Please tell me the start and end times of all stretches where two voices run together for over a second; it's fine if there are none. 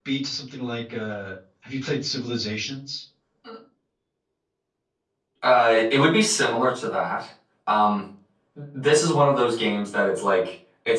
none

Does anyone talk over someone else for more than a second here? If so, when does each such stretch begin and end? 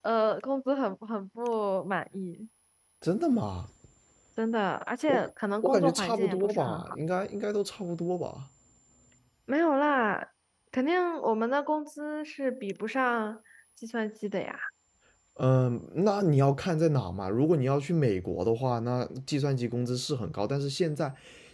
5.6-7.0

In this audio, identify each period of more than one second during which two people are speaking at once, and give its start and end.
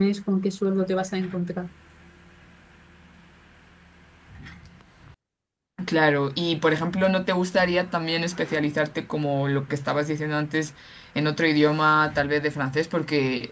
none

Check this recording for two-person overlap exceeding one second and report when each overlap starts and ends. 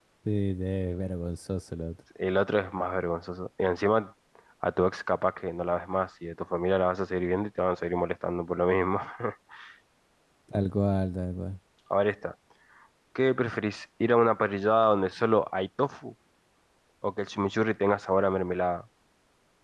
none

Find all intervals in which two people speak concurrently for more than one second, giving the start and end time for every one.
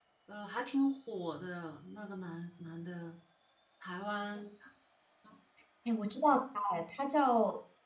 none

